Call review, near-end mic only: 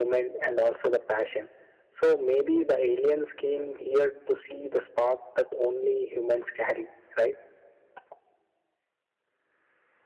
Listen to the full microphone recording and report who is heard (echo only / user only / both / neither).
echo only